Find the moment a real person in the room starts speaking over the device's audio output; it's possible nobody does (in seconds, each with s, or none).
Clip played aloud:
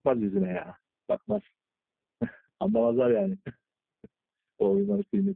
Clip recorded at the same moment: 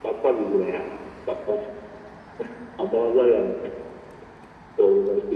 none